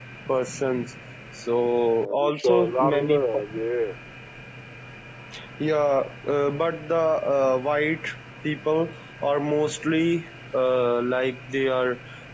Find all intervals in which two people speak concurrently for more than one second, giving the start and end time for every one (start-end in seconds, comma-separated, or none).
1.6-3.2